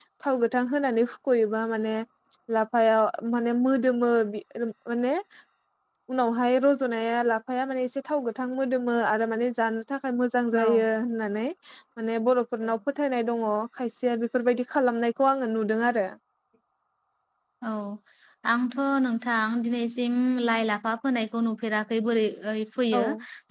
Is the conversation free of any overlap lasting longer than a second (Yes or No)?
Yes